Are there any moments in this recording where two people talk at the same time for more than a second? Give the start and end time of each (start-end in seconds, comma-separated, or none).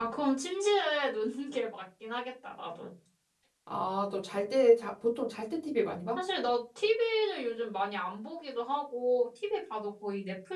none